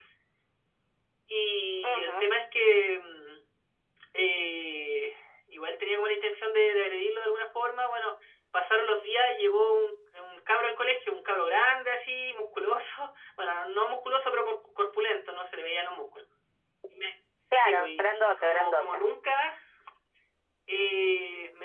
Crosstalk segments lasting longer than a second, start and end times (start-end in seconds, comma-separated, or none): 17.6-19.0